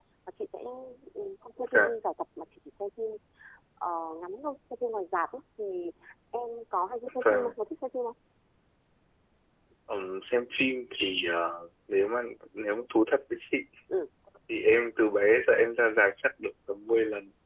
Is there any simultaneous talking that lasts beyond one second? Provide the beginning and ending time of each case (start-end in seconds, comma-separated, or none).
none